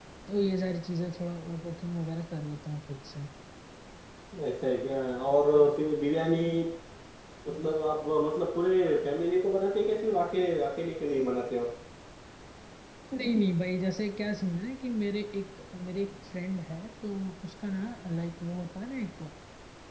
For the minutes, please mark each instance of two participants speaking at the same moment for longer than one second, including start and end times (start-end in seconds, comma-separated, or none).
none